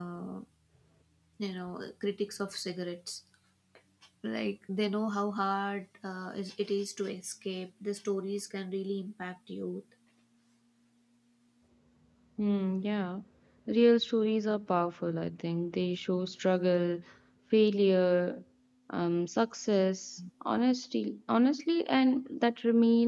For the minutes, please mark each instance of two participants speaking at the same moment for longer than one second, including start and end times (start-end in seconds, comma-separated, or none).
none